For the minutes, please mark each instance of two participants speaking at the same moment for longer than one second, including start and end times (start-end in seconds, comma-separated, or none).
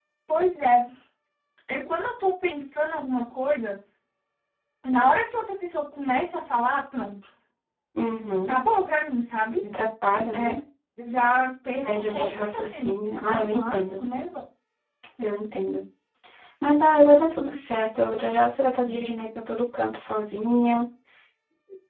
12.1-14.0